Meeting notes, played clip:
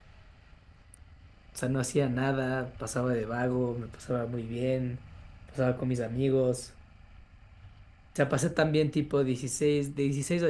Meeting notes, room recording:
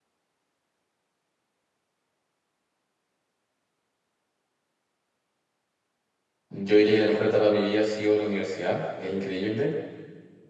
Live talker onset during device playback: 6.5 s

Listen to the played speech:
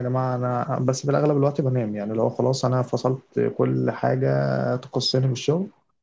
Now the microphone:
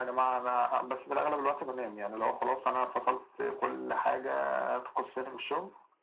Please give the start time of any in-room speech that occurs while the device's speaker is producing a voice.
none

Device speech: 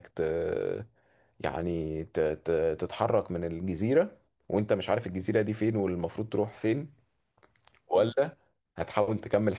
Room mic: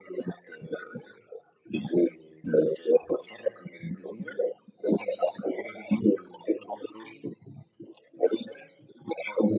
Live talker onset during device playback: none

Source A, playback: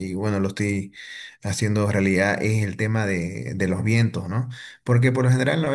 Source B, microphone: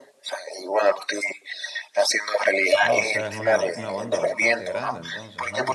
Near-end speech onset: 2.8 s

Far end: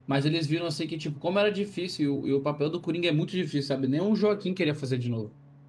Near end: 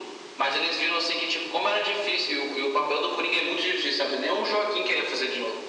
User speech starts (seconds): none

